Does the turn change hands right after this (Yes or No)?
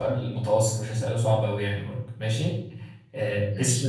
No